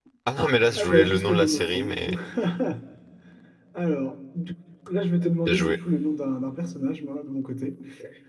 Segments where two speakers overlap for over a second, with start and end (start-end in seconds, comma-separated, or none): 0.8-2.1